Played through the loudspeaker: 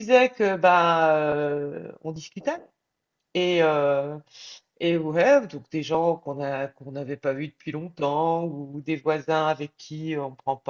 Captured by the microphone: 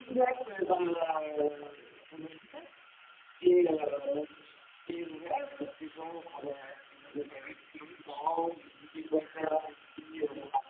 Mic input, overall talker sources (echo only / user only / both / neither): echo only